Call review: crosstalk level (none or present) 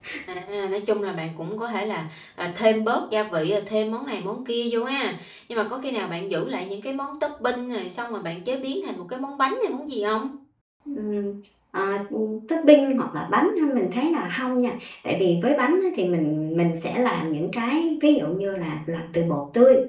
none